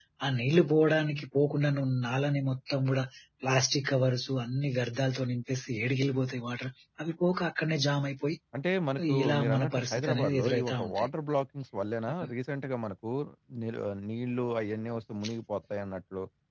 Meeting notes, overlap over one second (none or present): present